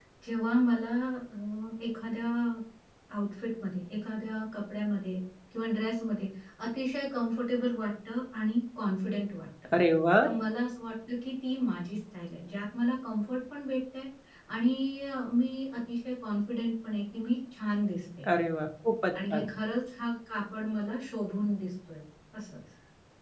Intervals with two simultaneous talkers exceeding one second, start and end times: none

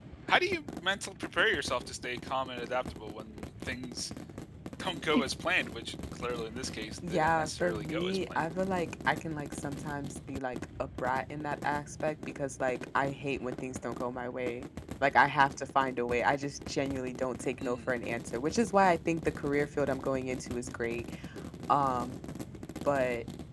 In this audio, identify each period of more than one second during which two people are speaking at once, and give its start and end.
7.1-8.4

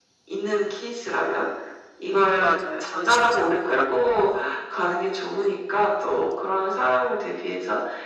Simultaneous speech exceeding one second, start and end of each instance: 2.4-4.1

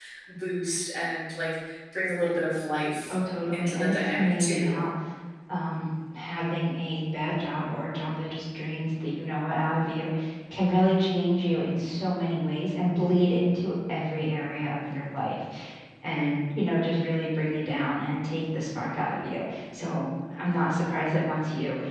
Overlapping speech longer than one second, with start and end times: 3.5-4.8

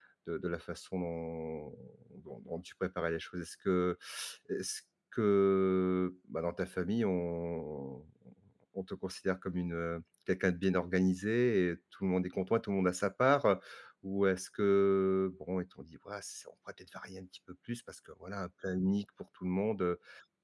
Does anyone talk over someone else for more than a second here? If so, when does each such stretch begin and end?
none

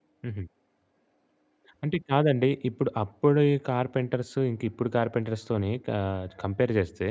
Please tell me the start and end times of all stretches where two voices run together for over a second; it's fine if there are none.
none

